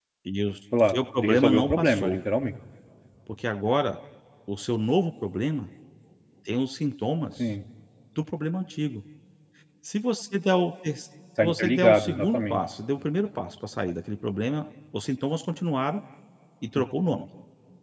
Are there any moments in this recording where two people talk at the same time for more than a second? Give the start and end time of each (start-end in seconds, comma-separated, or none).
0.9-2.2, 11.4-12.6